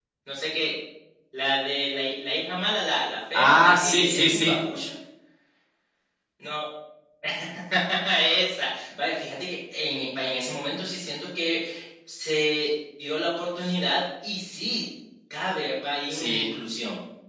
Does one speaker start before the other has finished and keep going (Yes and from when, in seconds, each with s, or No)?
Yes, from 3.3 s